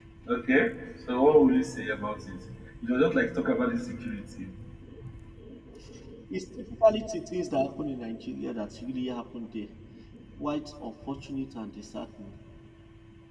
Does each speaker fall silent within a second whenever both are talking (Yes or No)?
Yes